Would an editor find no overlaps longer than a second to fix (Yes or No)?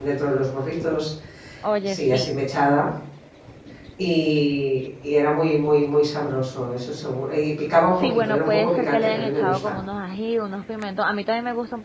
No